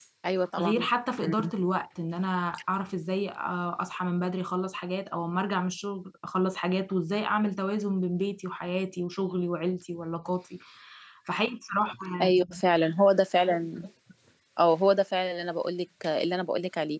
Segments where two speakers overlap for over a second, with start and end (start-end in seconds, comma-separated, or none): none